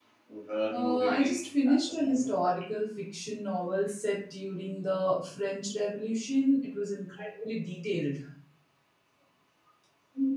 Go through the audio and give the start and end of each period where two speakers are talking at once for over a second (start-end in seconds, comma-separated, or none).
0.7-2.4